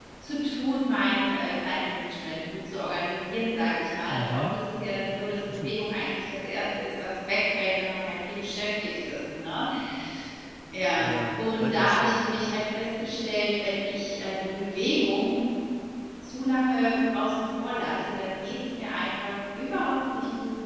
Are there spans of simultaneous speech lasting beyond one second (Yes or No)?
Yes